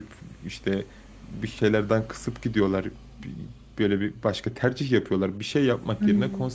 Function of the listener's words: listening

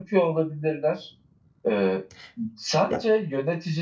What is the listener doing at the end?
listening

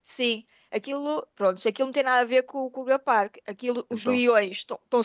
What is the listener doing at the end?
listening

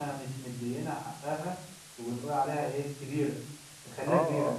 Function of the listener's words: taking over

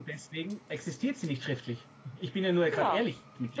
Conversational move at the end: taking over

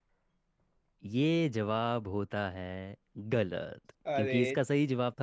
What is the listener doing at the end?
listening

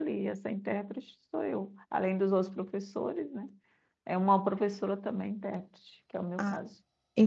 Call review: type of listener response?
taking over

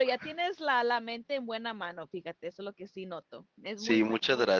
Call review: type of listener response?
taking over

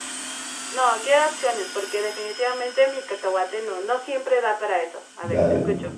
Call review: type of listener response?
taking over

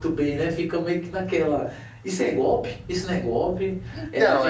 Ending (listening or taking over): listening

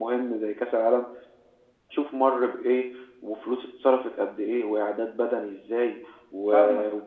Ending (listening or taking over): listening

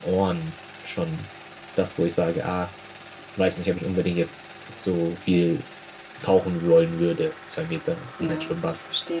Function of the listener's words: taking over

